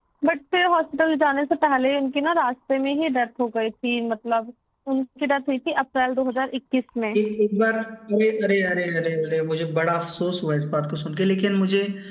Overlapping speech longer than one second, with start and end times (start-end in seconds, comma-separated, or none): none